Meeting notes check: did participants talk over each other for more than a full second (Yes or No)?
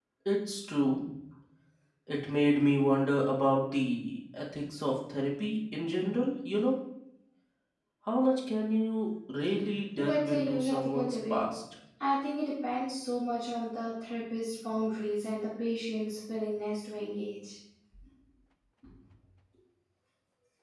Yes